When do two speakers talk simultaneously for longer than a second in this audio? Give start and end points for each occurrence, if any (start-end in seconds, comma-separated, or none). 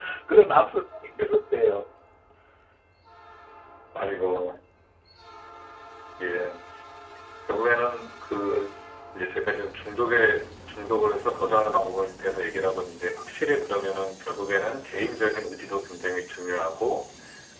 none